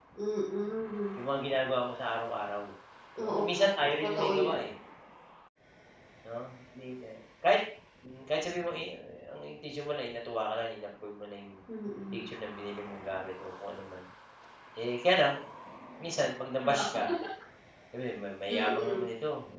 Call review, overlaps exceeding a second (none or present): present